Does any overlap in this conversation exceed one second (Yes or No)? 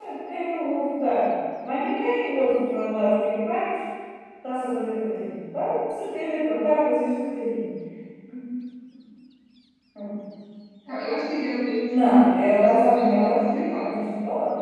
Yes